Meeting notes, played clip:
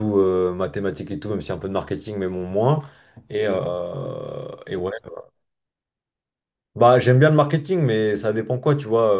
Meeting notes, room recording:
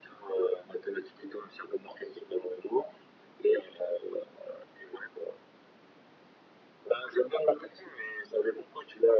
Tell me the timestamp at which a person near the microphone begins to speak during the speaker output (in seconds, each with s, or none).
none